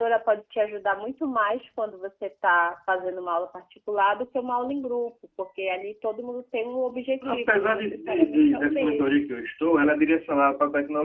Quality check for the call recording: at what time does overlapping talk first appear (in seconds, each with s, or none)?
7.2 s